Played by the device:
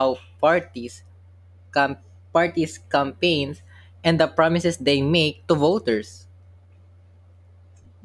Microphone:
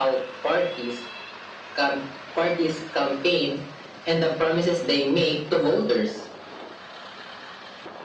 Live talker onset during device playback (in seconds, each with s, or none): none